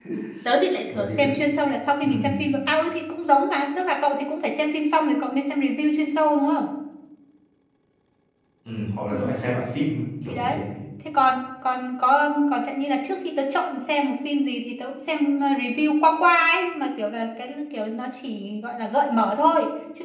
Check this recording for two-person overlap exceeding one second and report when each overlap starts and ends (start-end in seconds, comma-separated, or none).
none